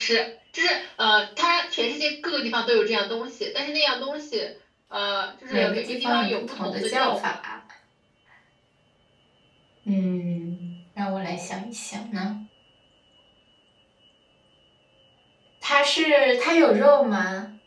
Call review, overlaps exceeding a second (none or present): present